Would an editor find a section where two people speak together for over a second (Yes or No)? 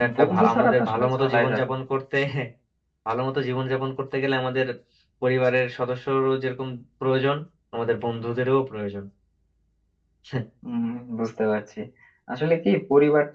Yes